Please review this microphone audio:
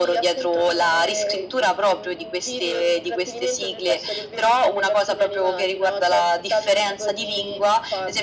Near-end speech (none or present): none